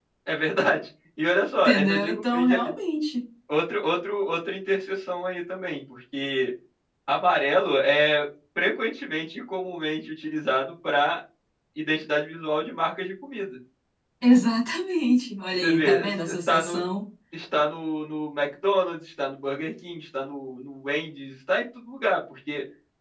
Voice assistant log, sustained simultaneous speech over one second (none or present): present